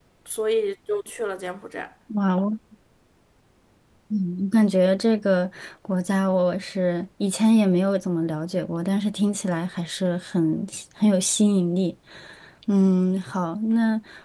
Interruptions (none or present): none